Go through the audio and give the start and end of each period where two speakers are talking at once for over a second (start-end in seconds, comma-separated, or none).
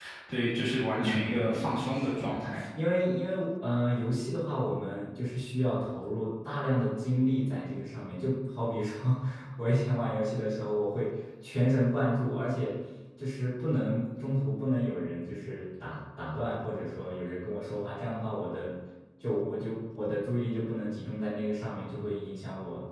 0.9-2.6